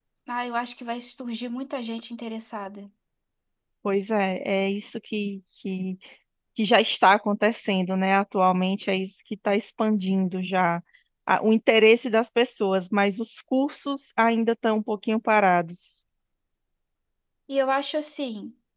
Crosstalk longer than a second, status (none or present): none